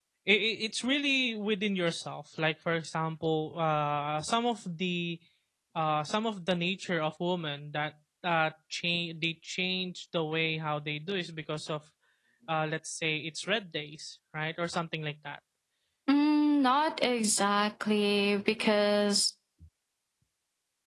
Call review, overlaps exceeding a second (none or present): none